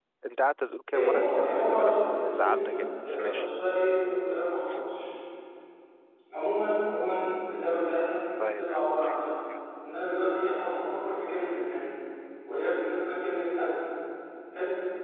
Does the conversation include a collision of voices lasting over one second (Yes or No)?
Yes